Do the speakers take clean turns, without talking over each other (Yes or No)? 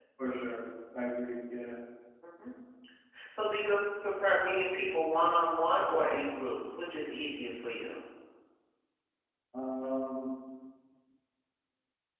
Yes